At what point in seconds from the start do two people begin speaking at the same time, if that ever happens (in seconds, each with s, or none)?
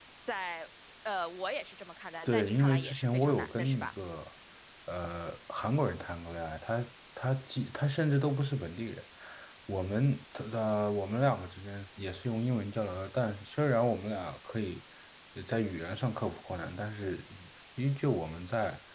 2.2 s